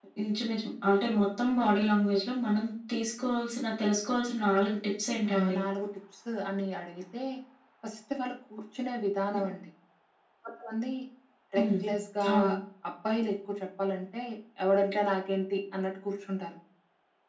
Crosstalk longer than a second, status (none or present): none